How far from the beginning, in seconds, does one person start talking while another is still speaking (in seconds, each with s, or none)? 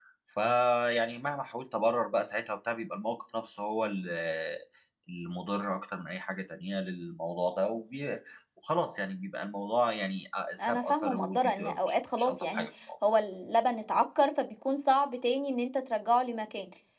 10.6 s